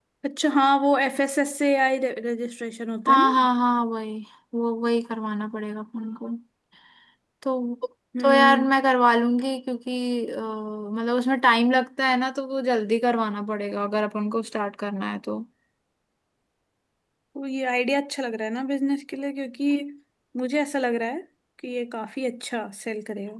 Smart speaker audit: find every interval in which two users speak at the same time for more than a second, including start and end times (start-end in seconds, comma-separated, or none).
none